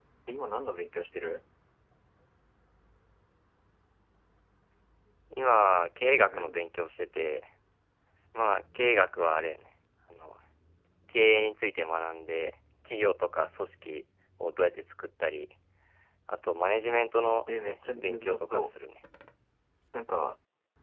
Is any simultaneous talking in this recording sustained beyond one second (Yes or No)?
Yes